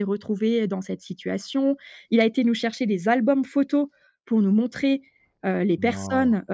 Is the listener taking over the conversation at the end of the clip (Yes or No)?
No